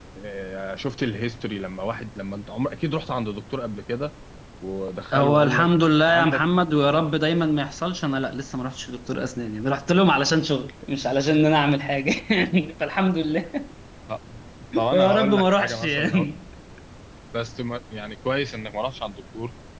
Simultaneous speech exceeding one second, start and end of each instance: 5.1-6.4, 14.9-16.3

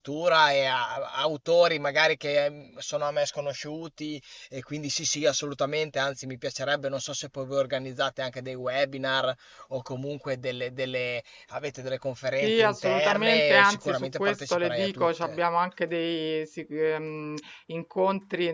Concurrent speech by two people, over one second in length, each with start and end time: 12.4-15.4

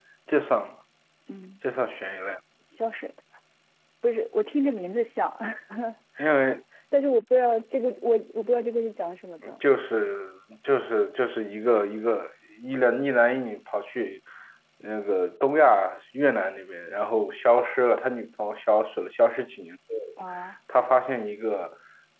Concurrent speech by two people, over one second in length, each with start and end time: none

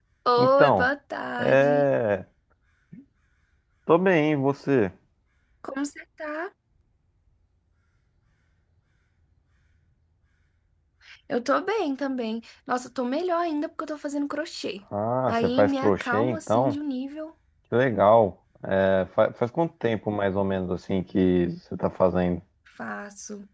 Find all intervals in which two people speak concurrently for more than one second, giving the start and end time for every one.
15.3-16.8

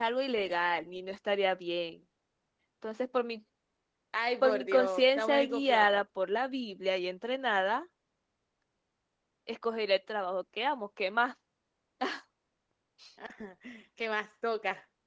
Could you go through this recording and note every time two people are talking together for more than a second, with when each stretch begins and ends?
4.4-6.0

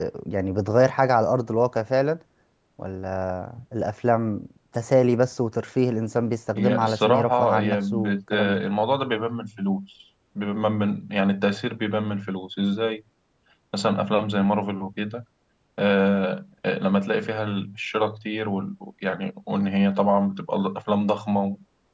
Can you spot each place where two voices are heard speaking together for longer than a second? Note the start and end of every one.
6.6-8.6

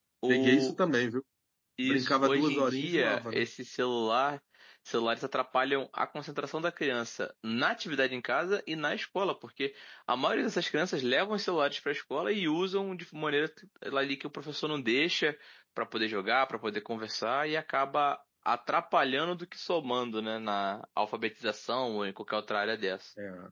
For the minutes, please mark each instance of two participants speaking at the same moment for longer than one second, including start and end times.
1.8-3.4

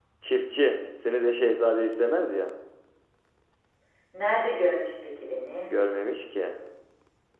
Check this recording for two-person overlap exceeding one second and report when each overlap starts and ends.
none

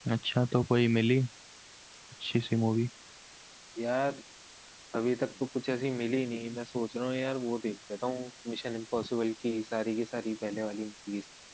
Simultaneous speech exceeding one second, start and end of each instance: none

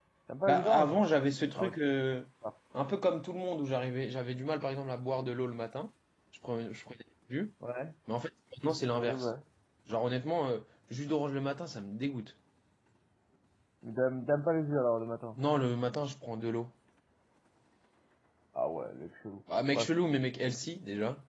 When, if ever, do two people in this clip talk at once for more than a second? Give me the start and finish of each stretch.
none

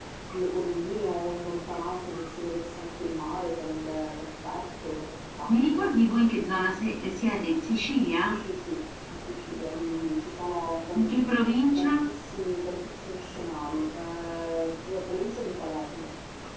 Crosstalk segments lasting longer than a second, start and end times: none

